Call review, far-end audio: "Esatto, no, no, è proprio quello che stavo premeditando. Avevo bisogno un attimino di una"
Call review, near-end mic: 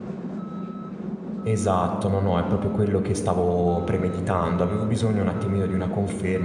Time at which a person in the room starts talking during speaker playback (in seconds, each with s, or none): none